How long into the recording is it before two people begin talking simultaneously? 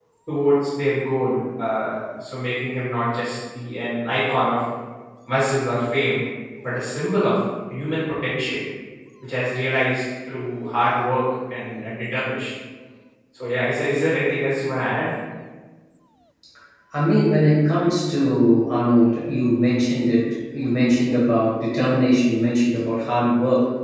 none

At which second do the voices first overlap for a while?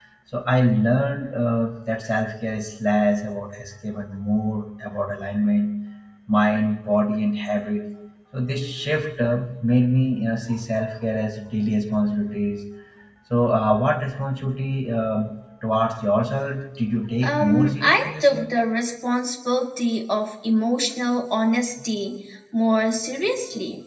17.2 s

